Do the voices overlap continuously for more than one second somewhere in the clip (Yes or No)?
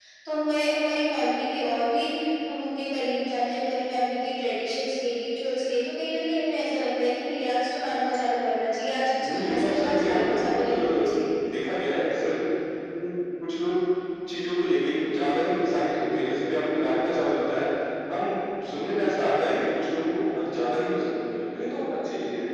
Yes